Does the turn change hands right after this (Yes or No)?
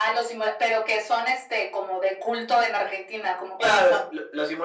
Yes